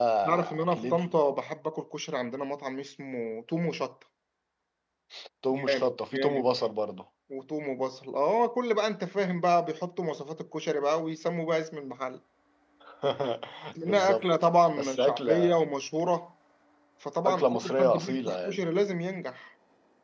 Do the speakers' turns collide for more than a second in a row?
Yes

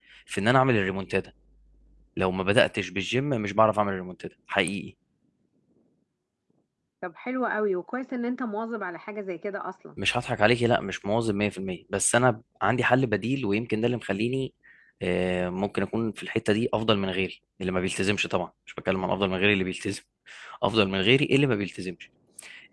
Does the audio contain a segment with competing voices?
No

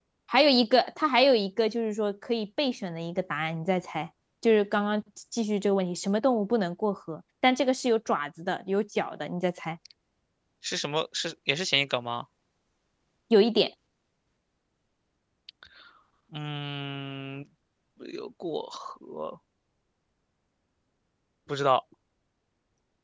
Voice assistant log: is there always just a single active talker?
Yes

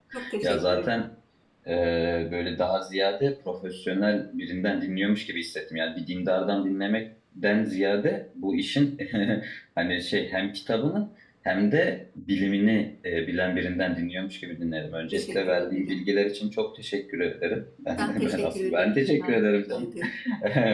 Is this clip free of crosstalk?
No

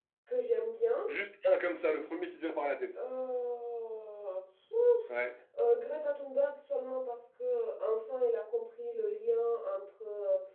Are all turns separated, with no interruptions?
Yes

